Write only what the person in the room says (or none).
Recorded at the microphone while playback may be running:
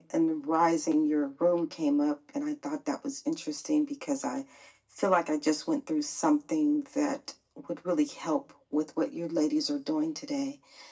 none